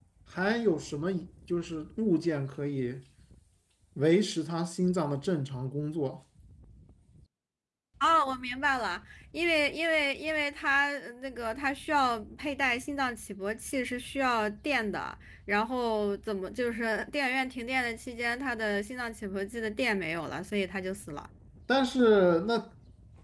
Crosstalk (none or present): none